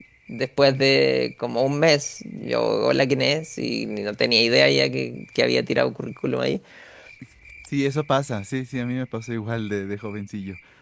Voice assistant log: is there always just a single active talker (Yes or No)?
Yes